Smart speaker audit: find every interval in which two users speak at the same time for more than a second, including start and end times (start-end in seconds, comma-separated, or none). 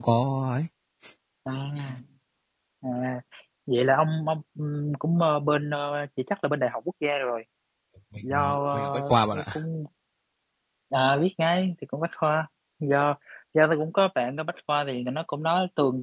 8.2-9.4